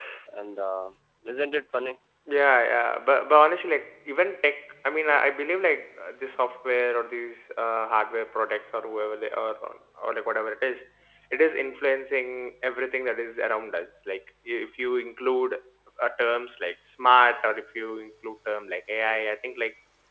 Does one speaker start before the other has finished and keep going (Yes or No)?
No